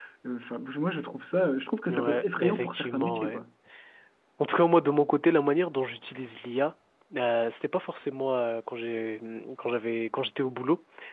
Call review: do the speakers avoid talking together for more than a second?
No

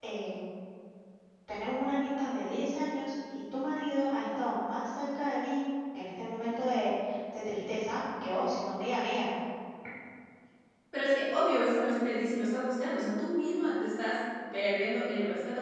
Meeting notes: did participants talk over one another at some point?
No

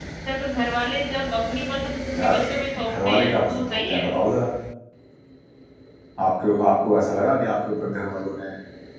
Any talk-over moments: Yes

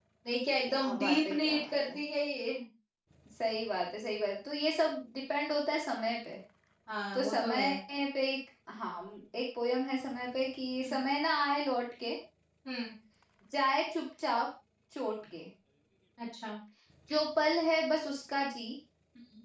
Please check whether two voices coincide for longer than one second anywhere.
Yes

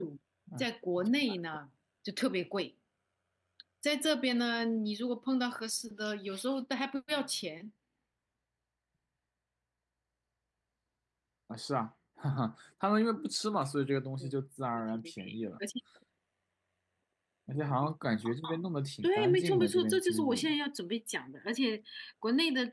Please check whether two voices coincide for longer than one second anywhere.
Yes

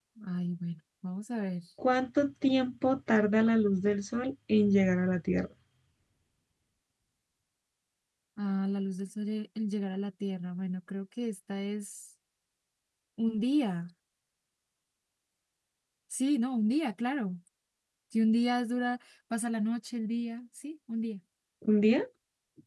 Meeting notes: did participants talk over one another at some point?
No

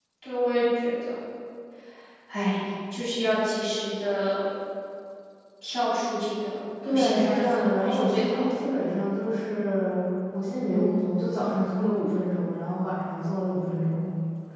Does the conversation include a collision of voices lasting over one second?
Yes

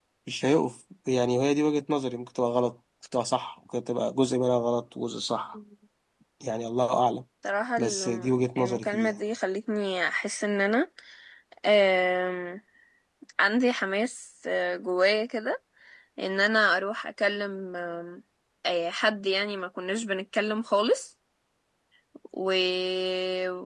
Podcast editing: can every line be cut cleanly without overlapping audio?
No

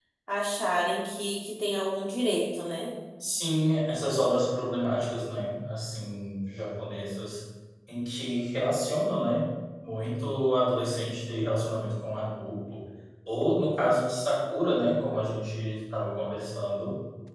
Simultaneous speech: No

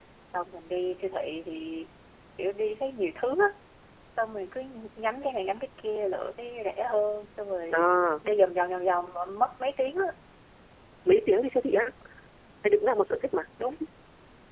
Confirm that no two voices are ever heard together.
Yes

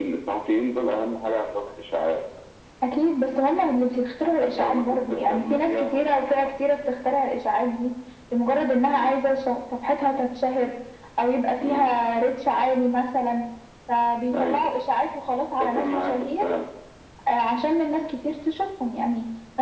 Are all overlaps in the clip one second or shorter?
No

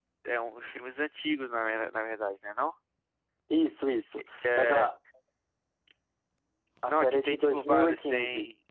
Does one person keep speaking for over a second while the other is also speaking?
Yes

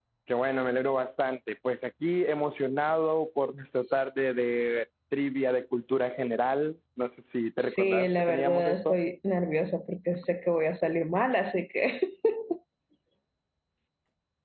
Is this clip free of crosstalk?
No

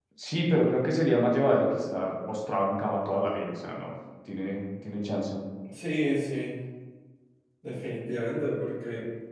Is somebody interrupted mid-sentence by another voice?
No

